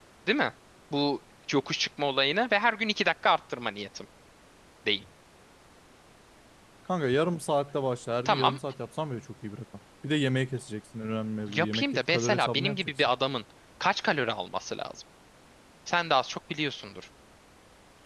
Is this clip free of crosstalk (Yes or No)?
No